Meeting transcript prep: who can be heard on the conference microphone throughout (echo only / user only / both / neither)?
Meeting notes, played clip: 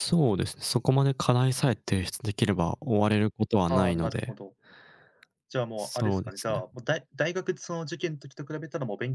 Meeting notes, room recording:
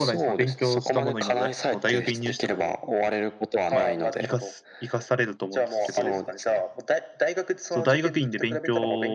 both